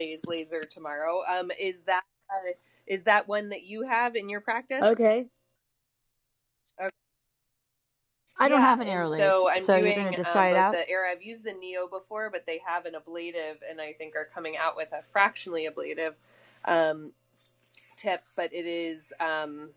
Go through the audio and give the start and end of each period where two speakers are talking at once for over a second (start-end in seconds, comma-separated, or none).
8.4-10.8